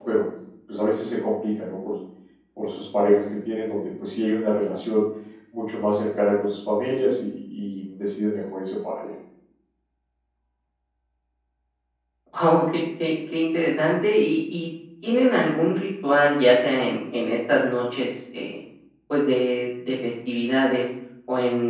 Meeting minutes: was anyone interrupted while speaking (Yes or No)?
No